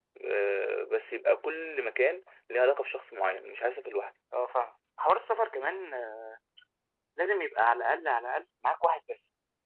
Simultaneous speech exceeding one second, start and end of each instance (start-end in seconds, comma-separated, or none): none